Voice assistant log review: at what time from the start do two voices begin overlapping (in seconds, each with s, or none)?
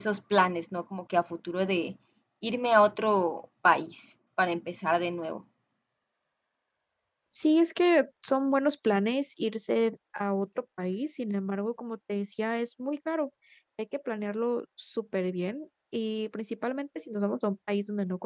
none